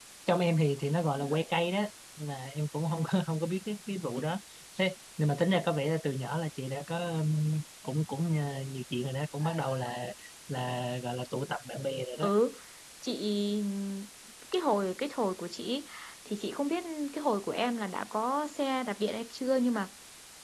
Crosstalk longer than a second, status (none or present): none